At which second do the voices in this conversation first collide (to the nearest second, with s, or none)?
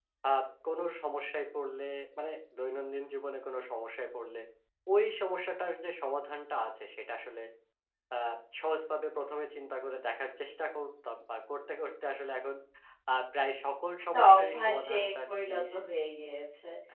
14 s